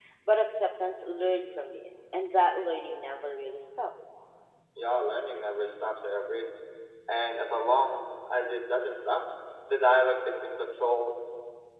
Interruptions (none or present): none